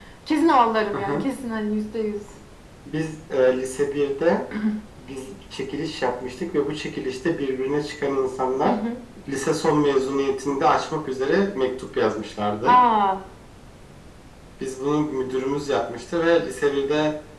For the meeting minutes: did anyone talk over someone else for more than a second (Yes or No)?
No